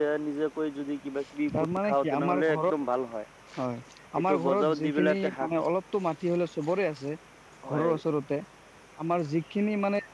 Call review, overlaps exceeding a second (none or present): present